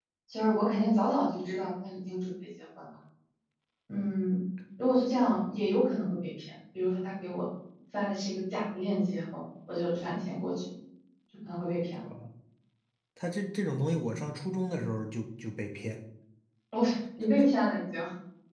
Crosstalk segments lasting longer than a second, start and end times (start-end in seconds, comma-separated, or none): none